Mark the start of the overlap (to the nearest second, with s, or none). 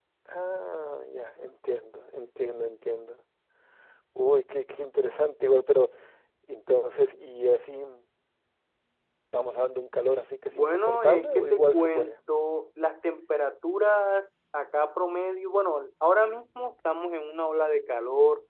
11 s